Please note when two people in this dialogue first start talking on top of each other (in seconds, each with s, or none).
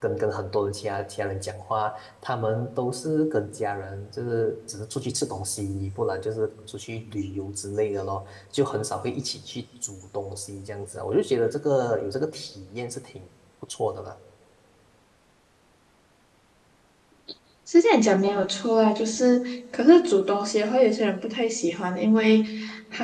none